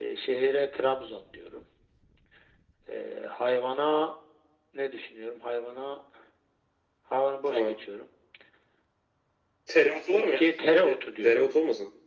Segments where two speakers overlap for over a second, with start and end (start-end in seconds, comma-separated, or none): 10.1-11.5